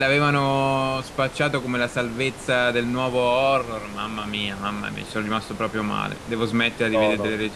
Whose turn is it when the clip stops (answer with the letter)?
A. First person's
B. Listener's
A